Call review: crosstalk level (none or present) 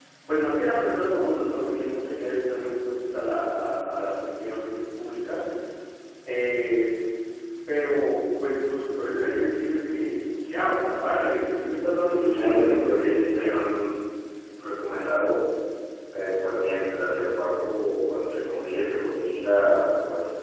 present